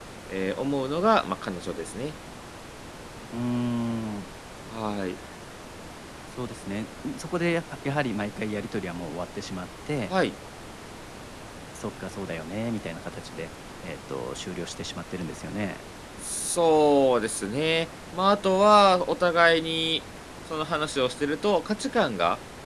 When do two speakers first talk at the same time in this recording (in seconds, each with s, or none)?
none